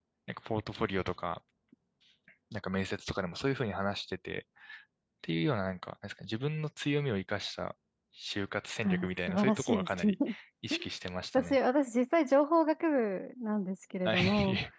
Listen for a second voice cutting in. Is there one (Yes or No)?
Yes